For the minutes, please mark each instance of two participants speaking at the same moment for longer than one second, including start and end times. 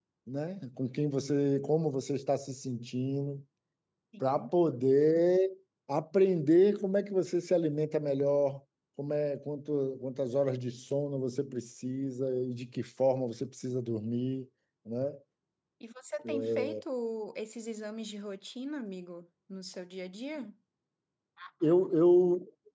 none

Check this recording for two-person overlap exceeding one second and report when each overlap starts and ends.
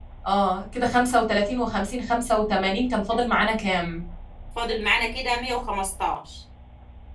none

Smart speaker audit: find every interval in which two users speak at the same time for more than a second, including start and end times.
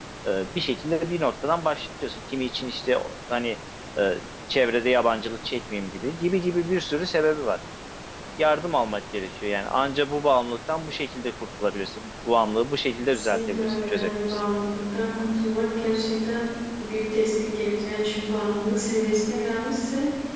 13.1-14.4

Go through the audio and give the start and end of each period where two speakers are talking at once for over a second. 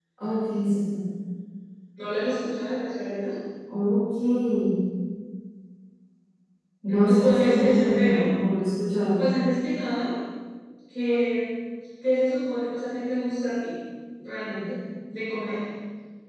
6.9-8.3

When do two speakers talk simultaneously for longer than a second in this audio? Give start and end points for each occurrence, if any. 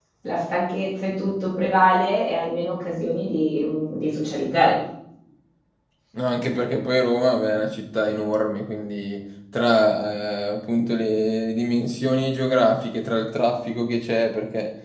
none

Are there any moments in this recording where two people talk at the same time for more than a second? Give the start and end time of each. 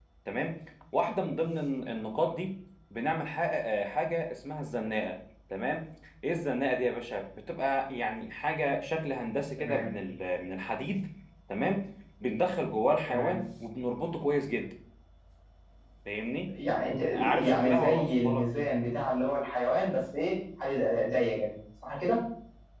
17.1-18.5

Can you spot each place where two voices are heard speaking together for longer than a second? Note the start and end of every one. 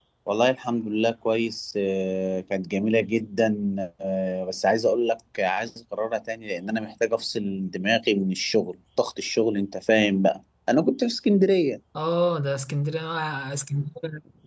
none

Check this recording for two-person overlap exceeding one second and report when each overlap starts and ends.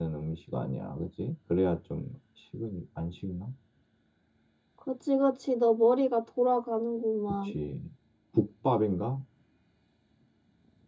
none

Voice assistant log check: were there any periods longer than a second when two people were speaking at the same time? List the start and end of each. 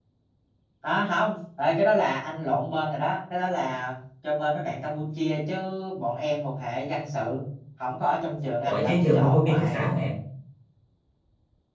8.7-9.8

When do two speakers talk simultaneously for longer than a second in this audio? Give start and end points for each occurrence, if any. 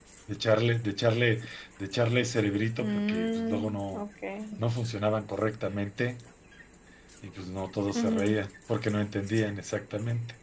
2.8-4.0

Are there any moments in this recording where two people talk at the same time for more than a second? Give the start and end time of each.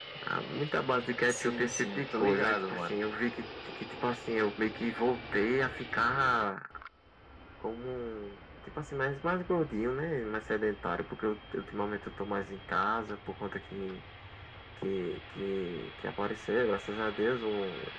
1.3-3.0

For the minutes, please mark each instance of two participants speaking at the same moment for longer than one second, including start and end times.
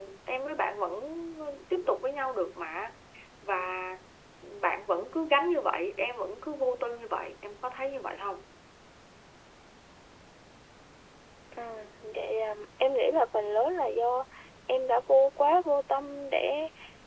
none

